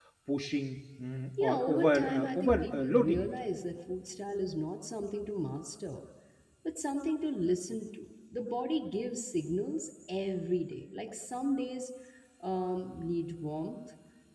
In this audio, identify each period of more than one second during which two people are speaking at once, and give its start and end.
1.4-3.3

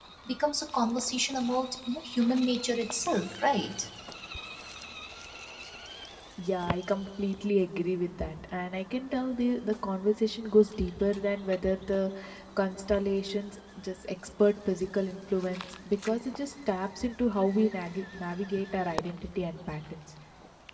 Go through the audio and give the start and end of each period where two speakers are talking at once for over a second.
none

